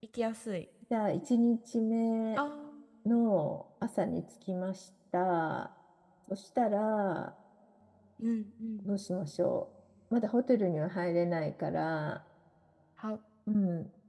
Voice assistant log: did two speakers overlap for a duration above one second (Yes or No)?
No